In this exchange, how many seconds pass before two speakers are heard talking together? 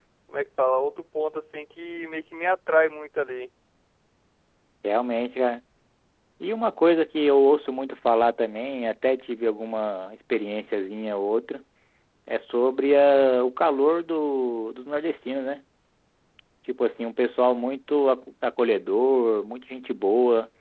none

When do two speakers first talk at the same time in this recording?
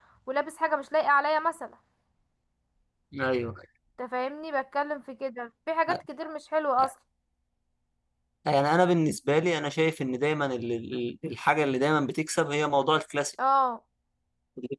none

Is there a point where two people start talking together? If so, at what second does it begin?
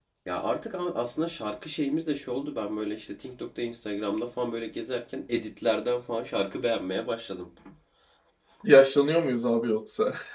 none

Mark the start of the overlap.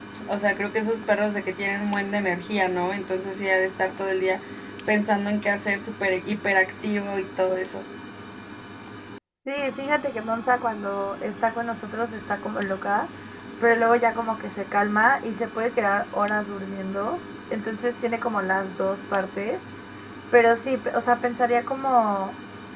none

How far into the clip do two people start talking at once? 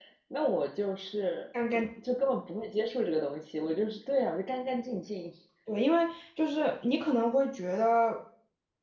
none

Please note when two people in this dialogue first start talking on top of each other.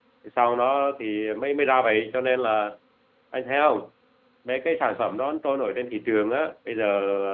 none

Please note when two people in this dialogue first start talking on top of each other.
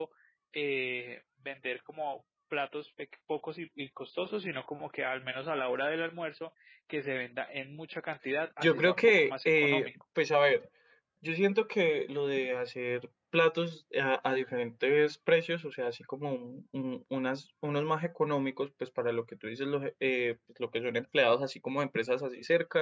8.6 s

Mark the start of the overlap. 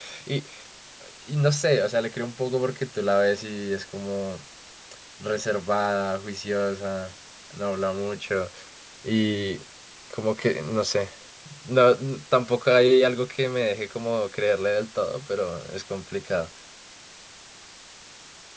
none

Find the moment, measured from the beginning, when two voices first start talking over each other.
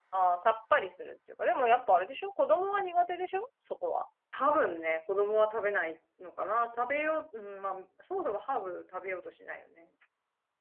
none

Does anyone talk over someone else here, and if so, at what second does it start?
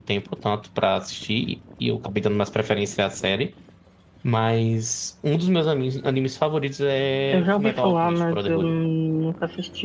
7.3 s

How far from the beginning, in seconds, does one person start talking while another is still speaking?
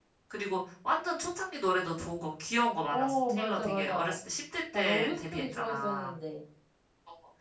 2.9 s

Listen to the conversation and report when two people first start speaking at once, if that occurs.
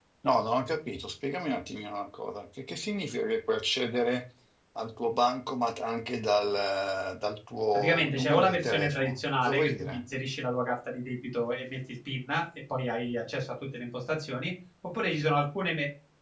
7.7 s

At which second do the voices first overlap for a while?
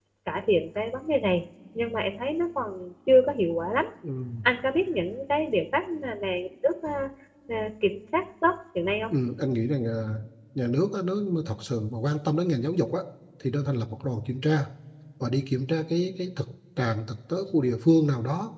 none

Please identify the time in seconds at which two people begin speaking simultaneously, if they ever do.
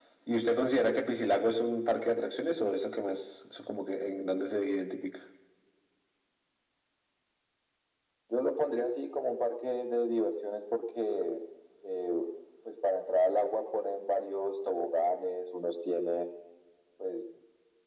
none

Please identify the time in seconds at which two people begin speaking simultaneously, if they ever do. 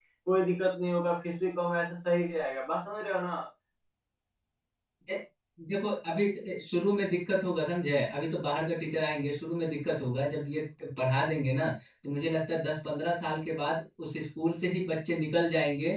none

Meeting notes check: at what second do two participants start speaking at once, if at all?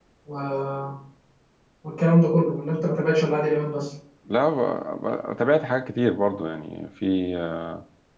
none

